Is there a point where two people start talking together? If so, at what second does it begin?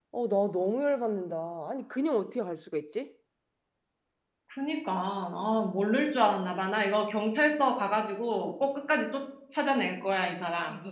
none

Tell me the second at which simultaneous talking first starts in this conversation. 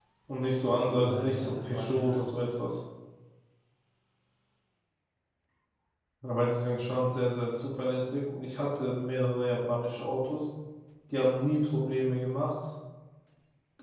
1 s

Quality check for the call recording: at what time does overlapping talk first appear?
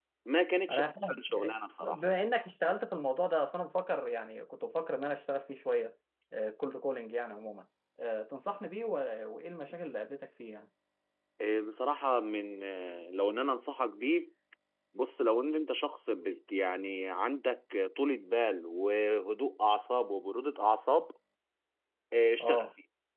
1 s

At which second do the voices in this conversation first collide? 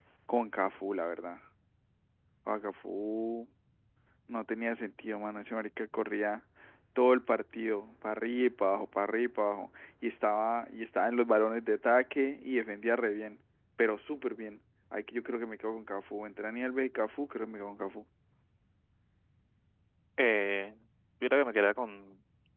none

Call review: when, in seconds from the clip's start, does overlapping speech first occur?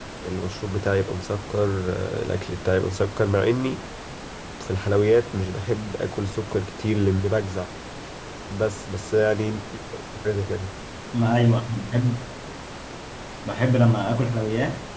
none

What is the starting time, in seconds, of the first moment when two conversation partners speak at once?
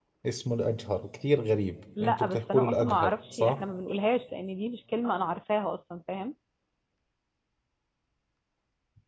2 s

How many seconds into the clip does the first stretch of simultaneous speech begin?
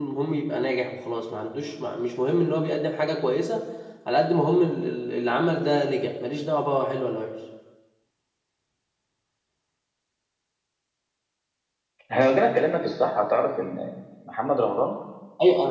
none

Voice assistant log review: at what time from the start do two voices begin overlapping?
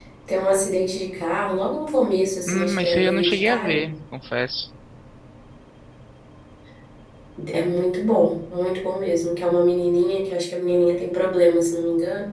2 s

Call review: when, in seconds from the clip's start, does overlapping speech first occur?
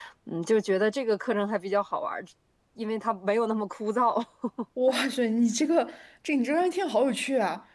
none

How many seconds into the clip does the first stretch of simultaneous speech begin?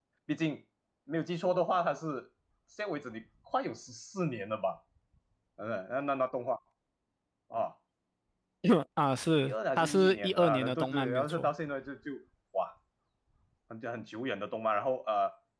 9 s

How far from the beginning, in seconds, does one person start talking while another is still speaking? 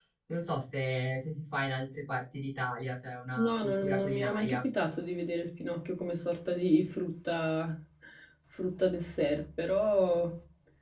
3 s

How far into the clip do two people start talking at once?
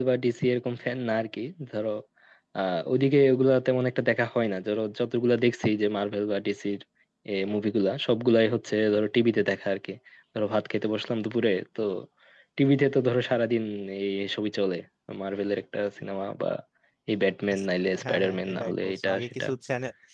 18 s

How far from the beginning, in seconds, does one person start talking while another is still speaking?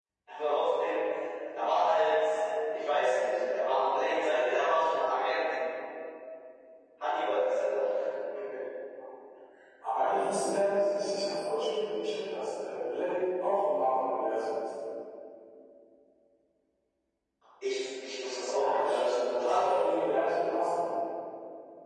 19 s

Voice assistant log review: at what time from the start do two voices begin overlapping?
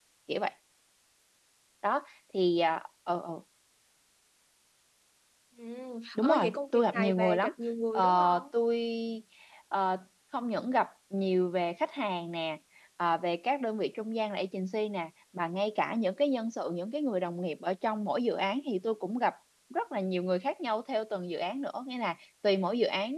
6 s

